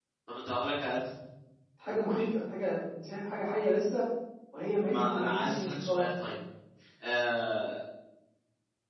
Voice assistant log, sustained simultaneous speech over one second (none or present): present